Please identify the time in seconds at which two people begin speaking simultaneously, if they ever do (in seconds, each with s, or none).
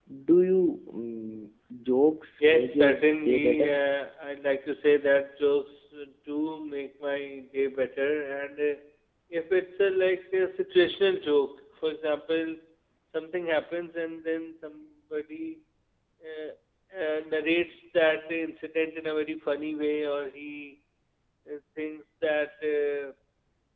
2.4 s